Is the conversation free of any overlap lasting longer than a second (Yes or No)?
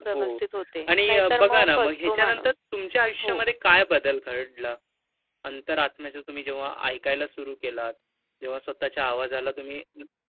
No